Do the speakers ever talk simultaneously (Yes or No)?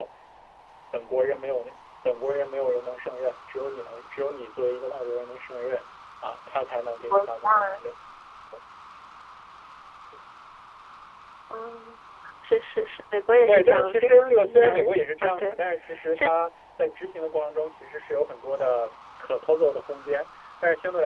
Yes